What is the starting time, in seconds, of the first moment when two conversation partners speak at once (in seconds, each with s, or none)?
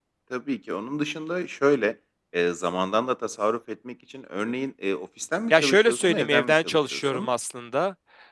5.5 s